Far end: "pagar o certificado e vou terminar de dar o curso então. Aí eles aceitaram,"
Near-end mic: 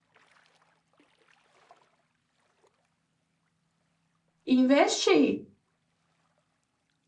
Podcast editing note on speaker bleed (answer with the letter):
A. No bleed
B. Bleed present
A